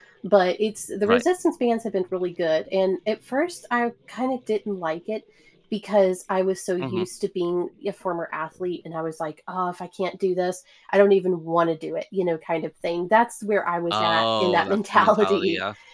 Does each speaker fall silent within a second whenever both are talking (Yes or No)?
No